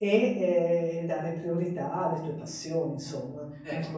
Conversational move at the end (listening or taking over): taking over